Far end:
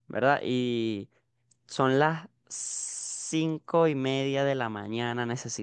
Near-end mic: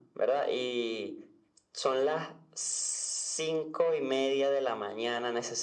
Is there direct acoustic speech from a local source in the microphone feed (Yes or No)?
No